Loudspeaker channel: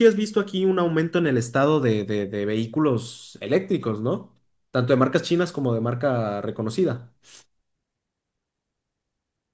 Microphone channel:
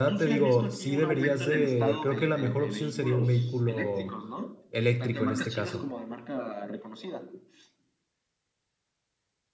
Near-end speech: present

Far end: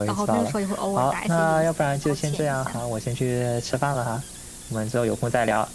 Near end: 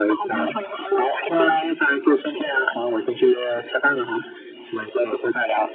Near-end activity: none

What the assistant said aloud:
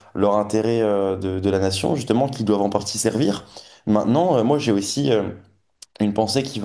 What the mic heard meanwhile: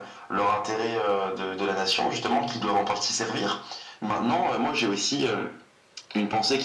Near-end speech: none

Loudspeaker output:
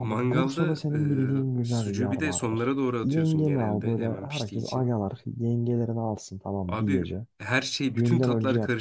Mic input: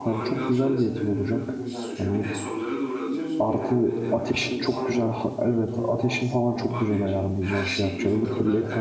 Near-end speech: present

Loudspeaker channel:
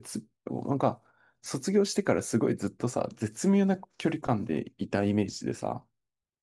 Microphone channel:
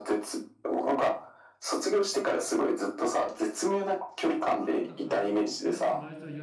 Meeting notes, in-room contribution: present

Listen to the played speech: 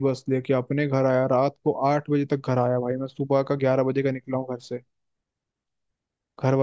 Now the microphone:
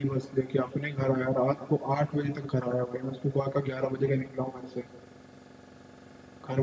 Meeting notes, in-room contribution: none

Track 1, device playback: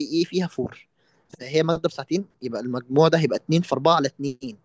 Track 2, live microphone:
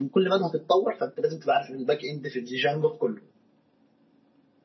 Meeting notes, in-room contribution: present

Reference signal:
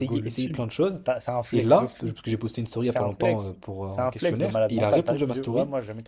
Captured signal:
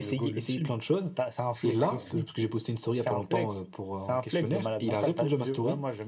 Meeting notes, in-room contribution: present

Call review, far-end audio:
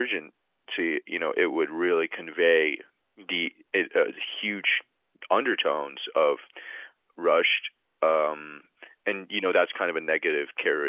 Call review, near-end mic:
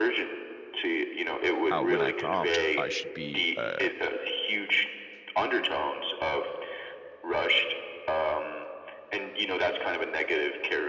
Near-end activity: present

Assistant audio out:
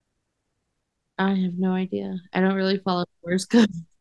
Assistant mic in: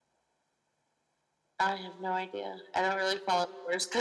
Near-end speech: none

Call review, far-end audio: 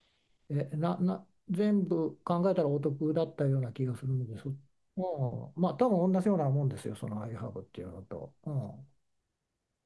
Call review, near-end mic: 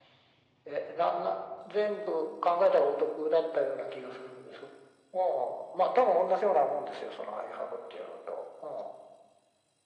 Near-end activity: none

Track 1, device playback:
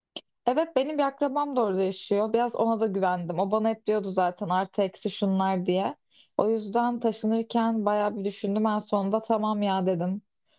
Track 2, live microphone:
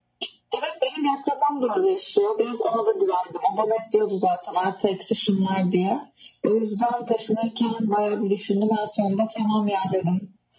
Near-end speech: none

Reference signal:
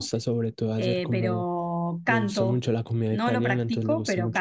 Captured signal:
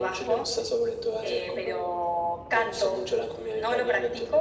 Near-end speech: none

